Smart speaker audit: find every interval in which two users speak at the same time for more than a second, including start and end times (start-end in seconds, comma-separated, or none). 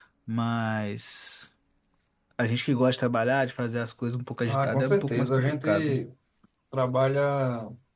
4.5-6.0